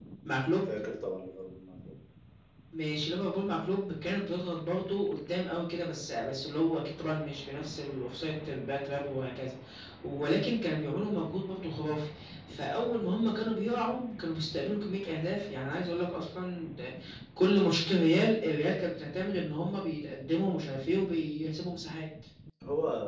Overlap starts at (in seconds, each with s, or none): none